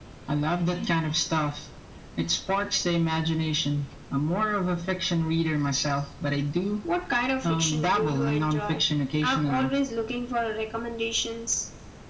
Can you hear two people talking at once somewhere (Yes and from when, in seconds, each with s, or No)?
Yes, from 7.4 s